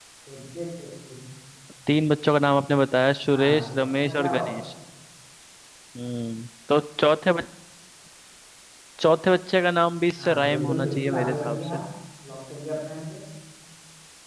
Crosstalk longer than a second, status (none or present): present